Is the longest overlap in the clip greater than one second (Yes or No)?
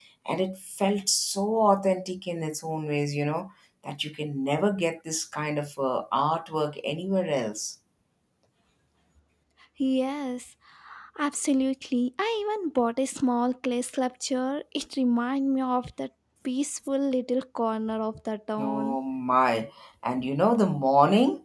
No